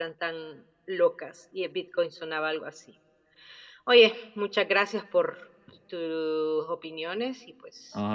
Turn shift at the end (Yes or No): Yes